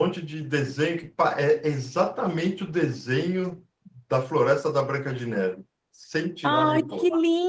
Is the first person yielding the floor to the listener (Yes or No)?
Yes